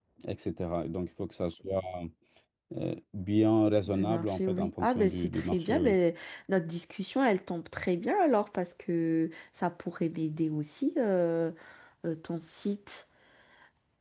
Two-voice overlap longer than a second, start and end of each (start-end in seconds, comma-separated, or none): 3.9-6.0